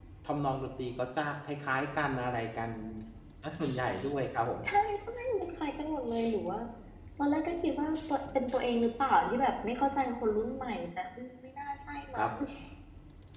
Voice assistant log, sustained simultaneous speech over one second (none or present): none